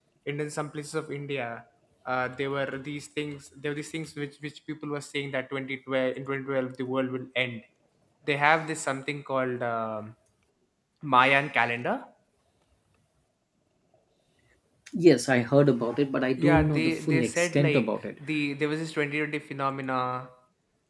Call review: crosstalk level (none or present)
present